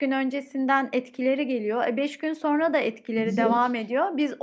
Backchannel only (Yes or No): Yes